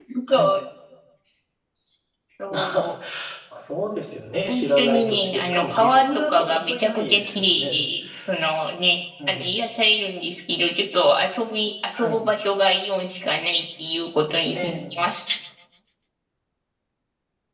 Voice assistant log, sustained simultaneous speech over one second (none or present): present